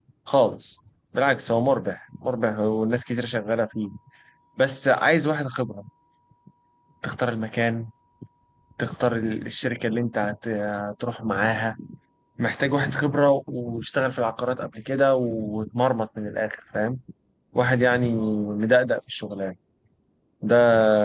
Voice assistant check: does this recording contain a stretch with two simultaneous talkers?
No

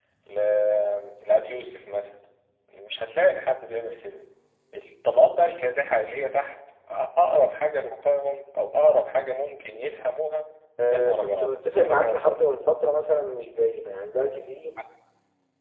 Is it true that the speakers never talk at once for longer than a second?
No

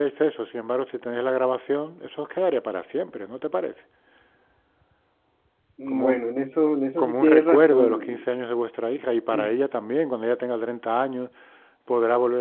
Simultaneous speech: Yes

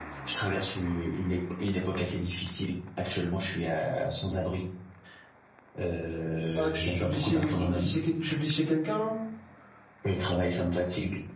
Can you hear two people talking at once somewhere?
Yes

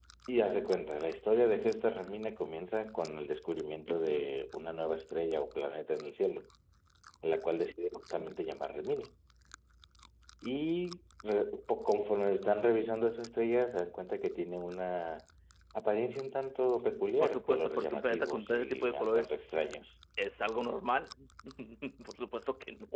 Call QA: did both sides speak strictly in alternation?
No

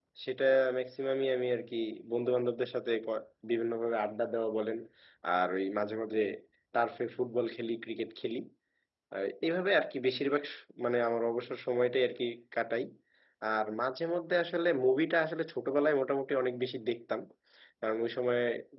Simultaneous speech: No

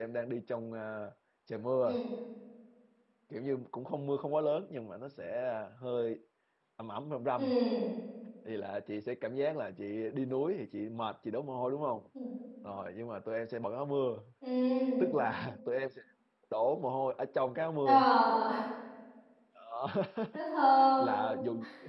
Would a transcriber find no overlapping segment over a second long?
Yes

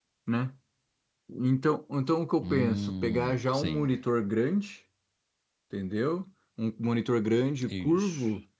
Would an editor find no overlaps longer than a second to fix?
No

